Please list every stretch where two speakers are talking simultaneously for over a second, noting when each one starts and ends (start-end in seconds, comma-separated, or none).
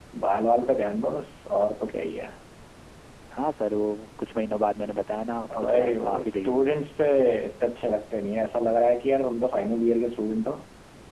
5.5-6.7